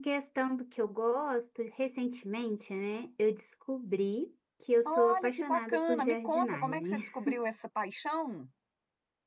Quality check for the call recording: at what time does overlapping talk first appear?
4.8 s

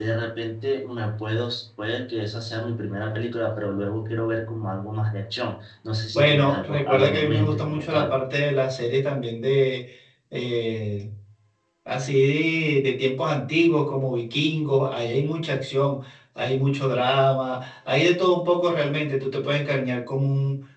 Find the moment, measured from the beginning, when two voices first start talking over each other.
6.1 s

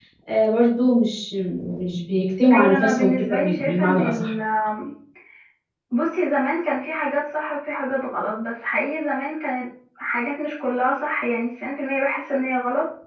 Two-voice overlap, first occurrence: 2.5 s

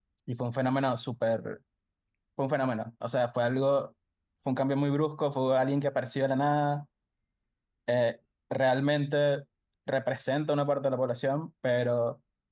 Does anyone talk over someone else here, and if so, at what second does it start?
none

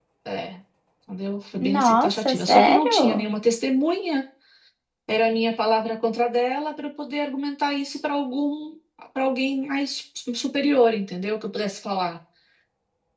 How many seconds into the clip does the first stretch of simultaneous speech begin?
1.6 s

